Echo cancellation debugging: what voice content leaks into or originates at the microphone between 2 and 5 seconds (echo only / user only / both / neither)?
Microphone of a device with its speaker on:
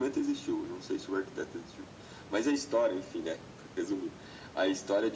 echo only